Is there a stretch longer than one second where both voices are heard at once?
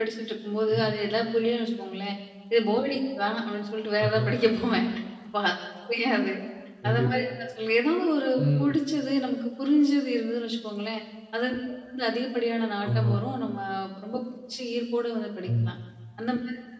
No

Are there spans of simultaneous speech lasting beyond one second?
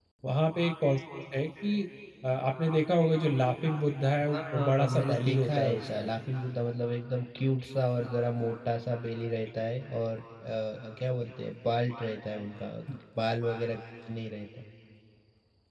Yes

